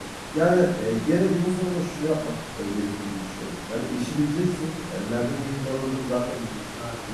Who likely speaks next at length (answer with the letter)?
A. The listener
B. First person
B